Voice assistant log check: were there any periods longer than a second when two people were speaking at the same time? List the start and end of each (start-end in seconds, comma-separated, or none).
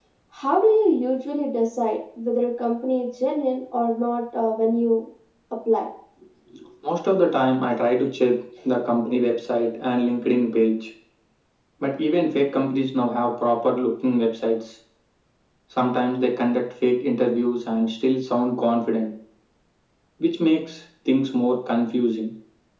none